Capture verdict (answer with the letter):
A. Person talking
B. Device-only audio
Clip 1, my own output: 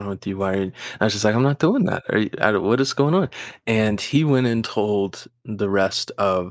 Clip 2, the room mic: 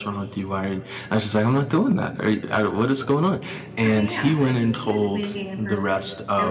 A